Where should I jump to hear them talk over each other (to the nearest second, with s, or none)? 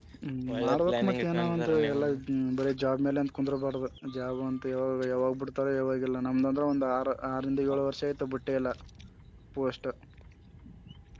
1 s